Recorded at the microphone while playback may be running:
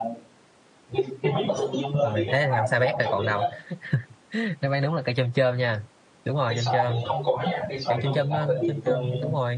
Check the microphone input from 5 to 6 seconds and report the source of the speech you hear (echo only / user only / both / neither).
user only